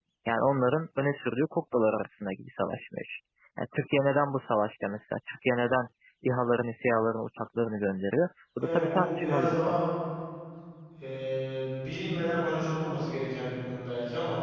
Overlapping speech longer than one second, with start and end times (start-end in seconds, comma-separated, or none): 8.6-9.8